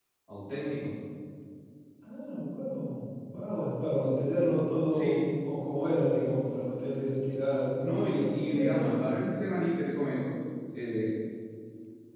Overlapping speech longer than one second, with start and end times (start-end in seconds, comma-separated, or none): 7.8-9.0